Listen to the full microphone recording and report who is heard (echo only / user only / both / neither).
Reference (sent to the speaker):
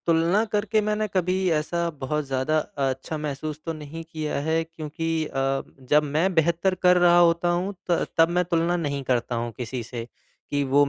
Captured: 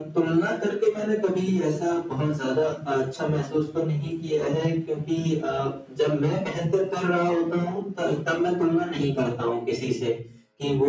echo only